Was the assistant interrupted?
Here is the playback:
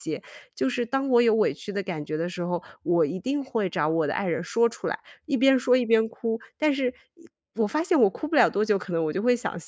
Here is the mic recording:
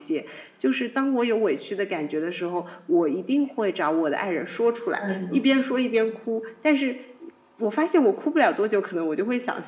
Yes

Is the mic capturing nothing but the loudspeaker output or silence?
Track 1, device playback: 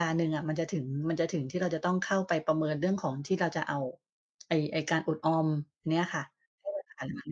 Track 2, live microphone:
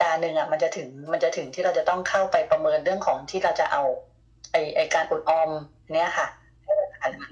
Yes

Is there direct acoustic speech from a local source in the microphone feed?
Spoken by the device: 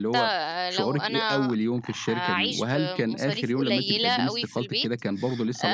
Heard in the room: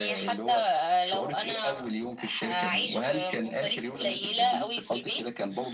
No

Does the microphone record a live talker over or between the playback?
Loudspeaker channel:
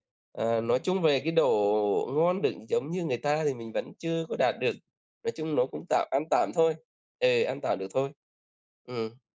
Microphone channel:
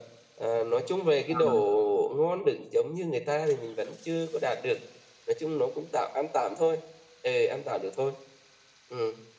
Yes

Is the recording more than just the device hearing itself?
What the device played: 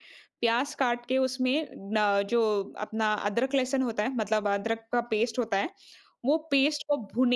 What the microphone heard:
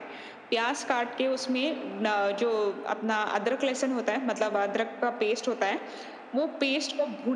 No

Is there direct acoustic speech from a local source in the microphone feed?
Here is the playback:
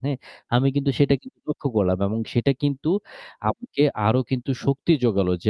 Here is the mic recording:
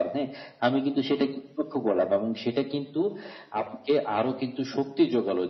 No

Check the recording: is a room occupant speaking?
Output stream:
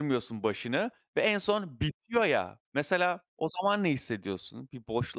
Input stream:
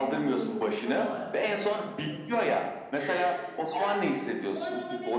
Yes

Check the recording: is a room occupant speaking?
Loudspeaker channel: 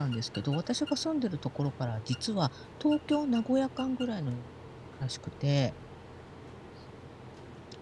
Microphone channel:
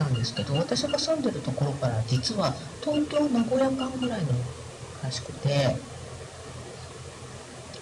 No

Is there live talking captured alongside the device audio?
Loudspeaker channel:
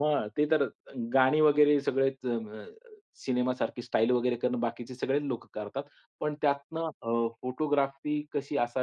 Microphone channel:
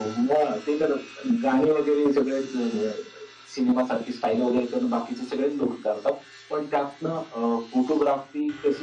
No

